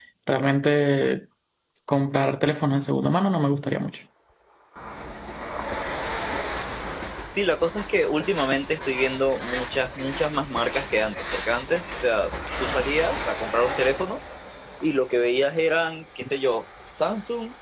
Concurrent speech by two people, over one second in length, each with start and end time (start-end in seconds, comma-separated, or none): none